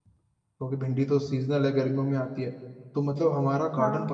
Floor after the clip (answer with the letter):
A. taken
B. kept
B